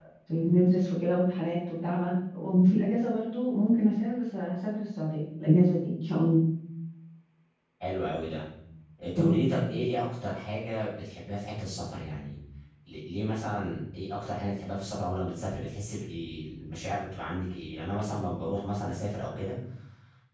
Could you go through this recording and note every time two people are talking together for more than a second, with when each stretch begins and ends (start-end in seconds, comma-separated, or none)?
none